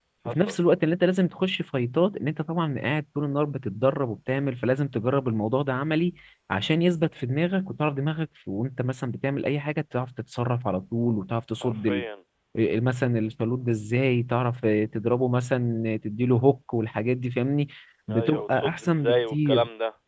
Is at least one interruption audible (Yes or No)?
Yes